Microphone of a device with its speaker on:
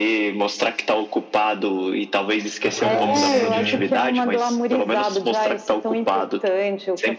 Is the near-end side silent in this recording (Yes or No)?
No